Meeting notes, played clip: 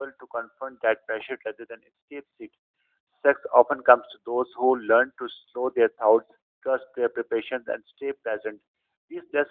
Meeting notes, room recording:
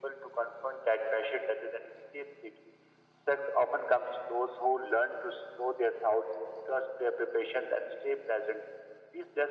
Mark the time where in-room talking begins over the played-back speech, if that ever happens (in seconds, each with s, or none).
none